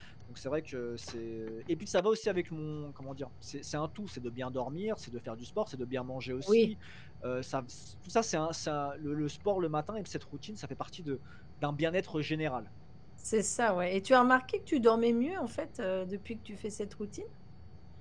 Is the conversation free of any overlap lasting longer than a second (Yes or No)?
Yes